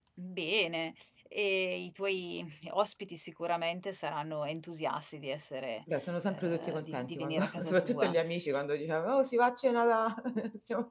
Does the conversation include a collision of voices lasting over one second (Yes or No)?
Yes